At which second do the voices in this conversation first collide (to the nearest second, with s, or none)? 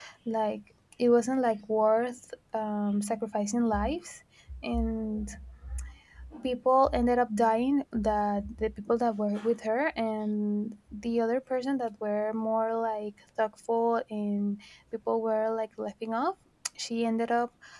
none